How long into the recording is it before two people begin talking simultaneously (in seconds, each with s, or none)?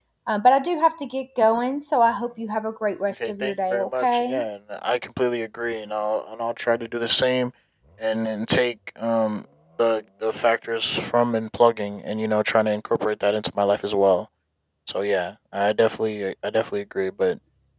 3.2 s